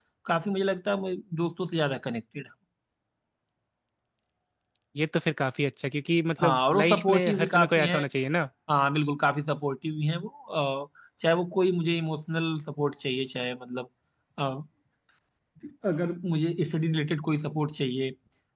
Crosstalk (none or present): present